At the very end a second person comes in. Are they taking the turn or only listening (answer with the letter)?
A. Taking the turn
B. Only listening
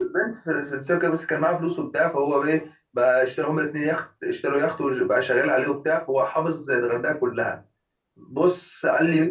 B